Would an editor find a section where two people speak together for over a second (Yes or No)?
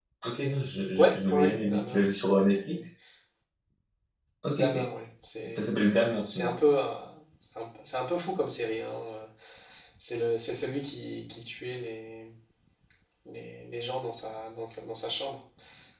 Yes